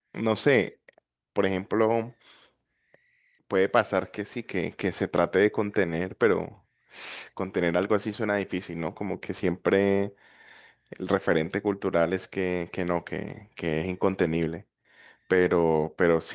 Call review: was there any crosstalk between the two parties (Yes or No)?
No